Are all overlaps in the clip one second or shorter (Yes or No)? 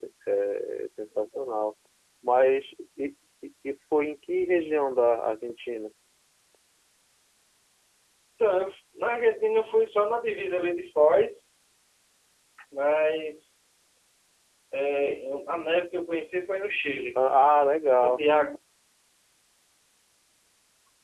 Yes